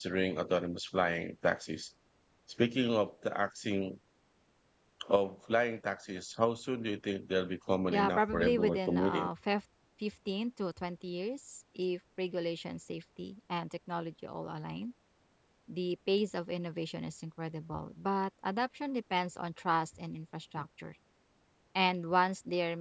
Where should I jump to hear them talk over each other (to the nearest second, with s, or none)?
8 s